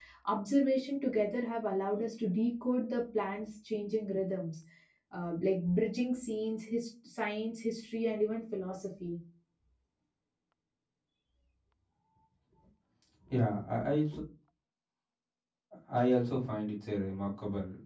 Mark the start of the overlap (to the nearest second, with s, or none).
none